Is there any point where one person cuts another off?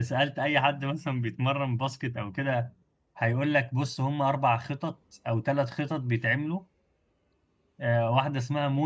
No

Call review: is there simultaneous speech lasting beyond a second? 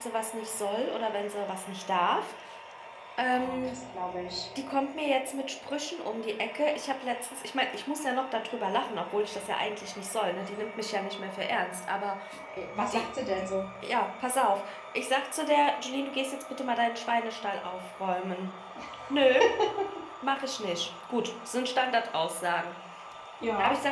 No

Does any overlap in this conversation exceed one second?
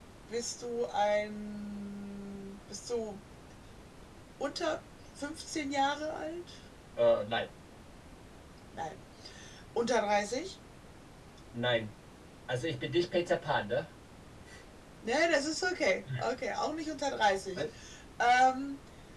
No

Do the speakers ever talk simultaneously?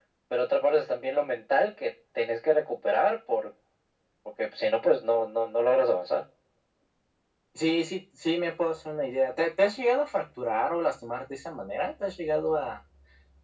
No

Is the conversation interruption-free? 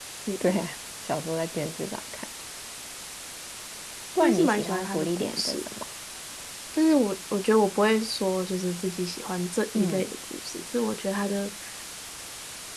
No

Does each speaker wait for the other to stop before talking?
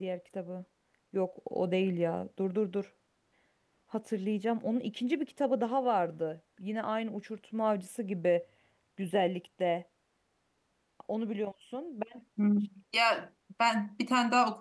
Yes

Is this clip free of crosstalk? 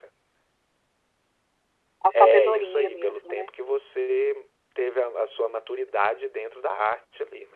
No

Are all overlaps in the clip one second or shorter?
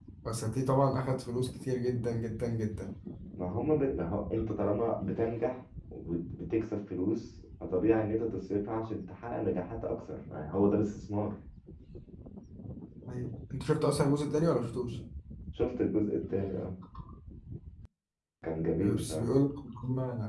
Yes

